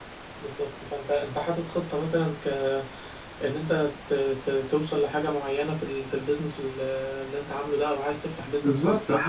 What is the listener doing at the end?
taking over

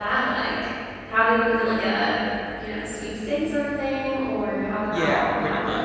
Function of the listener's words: taking over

